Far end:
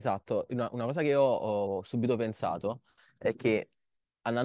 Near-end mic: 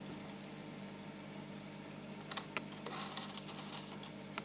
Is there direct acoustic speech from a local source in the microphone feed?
No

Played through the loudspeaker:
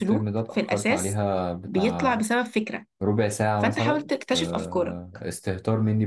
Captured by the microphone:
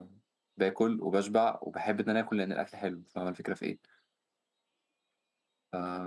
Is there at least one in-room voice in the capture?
Yes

